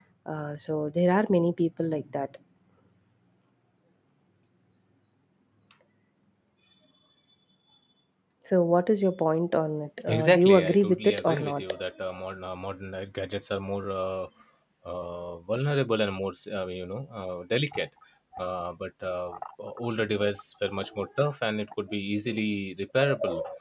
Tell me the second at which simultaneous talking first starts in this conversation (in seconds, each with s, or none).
10.1 s